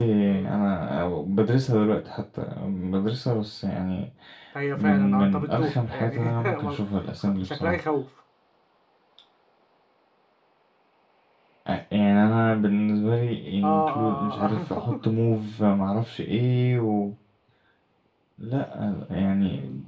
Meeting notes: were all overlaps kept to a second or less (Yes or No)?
No